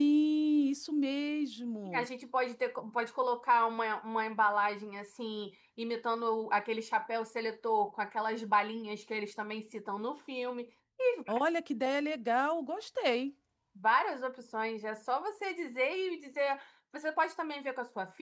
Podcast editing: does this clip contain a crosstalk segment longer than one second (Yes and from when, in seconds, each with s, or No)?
No